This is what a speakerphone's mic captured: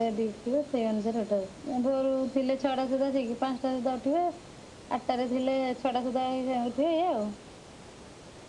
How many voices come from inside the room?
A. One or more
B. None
B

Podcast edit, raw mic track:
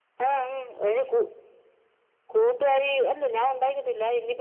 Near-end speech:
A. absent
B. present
A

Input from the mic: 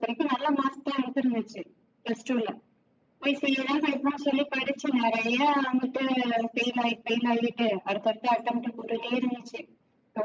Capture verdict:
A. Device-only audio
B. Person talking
A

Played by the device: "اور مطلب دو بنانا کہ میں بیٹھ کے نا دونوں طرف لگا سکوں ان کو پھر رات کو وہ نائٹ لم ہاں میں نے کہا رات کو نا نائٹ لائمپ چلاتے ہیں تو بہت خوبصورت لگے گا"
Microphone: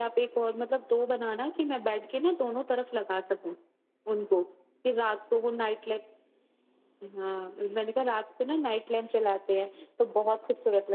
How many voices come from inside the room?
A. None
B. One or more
A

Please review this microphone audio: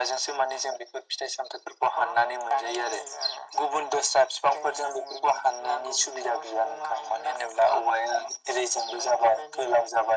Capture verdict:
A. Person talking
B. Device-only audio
B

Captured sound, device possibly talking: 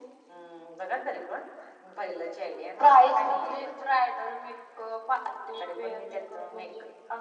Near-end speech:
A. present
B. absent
B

